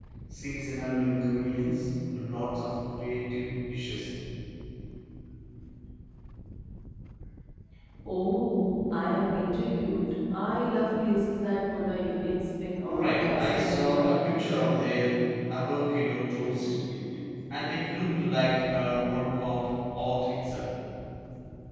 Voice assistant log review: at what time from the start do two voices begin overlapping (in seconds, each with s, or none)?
12.8 s